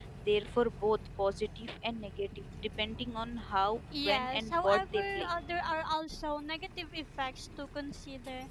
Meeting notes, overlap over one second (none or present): present